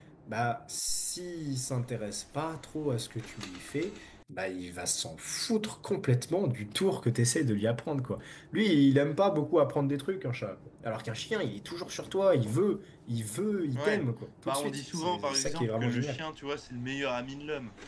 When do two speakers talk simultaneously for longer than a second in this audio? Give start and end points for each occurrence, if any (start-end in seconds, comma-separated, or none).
14.5-16.2